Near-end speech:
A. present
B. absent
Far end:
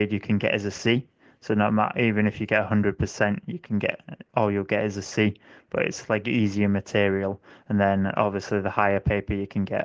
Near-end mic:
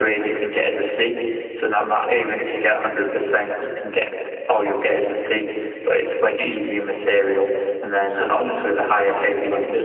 A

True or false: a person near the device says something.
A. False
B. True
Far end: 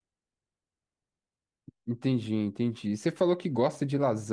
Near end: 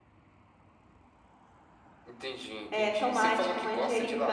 B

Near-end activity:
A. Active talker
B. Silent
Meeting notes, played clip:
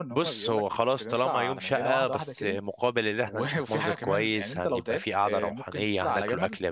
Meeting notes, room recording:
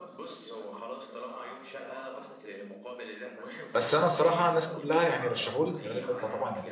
A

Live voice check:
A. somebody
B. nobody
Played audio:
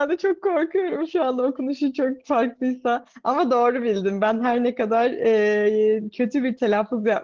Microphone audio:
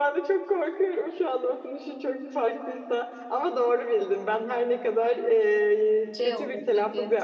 A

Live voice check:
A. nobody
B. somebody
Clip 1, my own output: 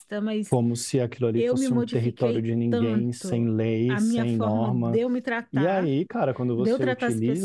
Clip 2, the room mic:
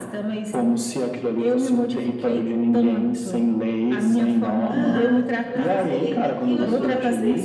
B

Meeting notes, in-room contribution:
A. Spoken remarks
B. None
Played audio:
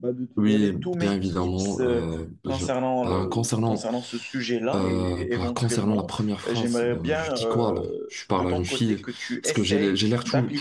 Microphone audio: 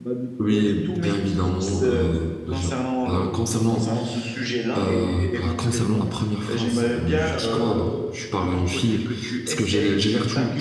B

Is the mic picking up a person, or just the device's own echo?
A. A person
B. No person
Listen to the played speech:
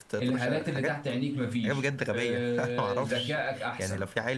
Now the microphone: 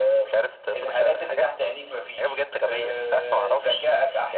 B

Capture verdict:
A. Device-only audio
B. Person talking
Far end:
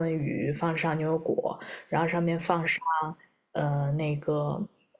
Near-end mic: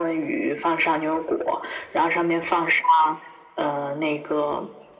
A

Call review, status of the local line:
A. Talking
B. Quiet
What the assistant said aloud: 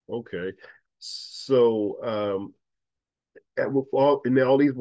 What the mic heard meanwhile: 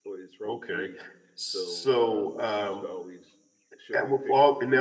A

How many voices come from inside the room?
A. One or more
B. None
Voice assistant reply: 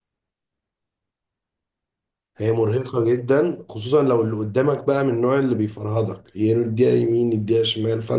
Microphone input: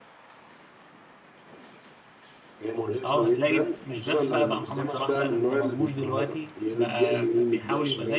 A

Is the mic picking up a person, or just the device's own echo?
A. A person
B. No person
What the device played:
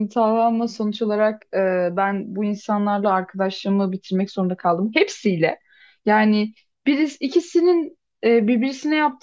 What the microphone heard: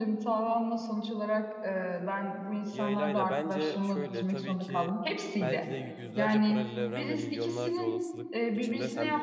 A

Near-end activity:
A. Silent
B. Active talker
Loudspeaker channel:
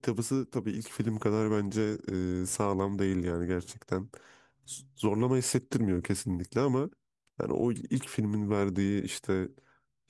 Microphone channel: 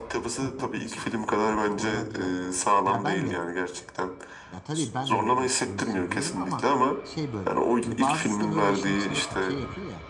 B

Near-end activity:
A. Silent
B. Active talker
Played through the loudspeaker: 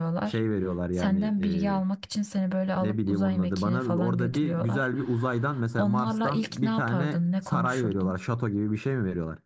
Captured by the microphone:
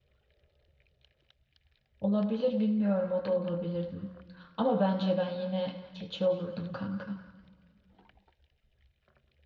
B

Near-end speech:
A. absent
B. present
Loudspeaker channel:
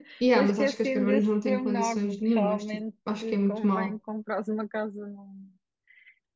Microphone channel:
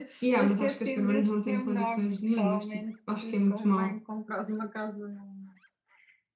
A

